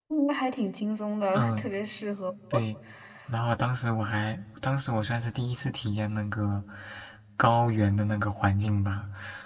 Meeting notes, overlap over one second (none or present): none